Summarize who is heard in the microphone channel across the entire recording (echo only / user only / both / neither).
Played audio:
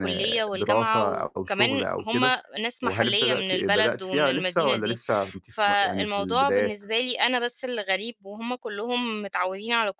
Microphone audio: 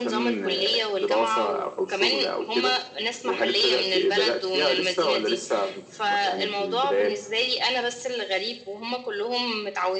echo only